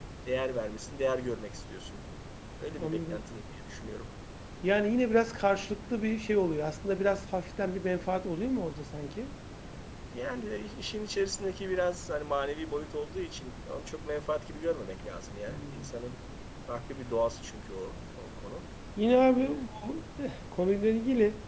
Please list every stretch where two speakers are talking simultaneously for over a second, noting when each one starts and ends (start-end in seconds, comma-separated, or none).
none